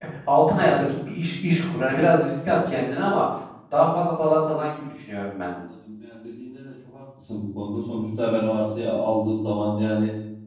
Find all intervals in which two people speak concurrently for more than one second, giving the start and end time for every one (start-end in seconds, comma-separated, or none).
none